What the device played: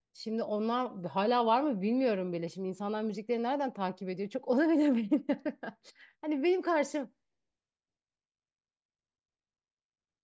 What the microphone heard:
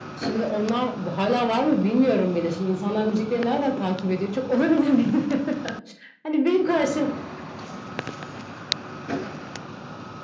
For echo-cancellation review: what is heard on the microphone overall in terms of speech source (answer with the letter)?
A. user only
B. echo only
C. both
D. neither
B